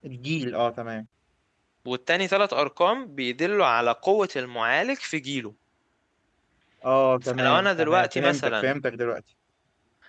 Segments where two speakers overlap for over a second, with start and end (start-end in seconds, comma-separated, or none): 7.2-8.7